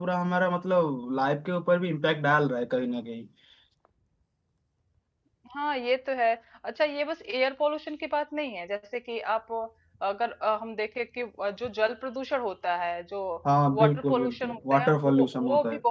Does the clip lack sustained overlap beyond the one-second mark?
No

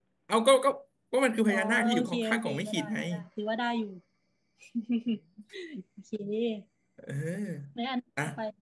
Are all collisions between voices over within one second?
No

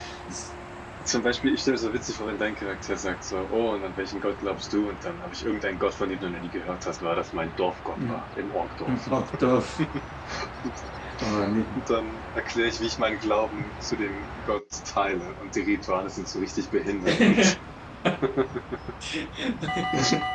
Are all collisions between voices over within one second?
Yes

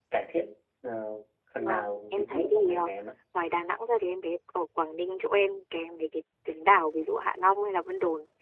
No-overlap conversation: No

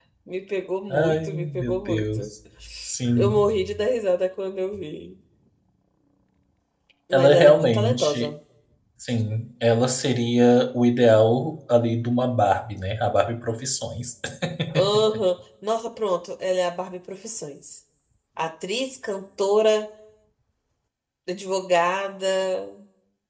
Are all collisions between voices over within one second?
No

